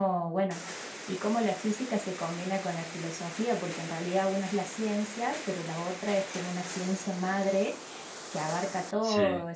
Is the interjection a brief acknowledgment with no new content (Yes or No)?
Yes